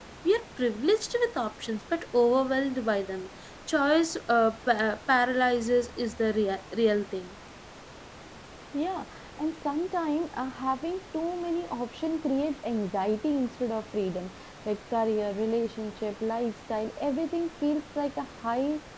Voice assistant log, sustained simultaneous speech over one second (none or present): none